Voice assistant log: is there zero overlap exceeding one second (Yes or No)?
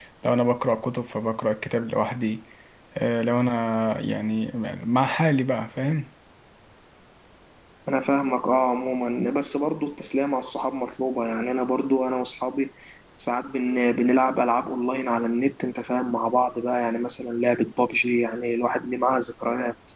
Yes